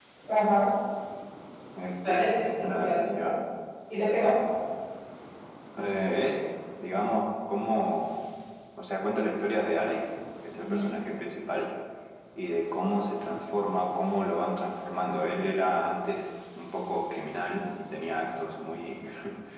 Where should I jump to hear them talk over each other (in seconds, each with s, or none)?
2.0 s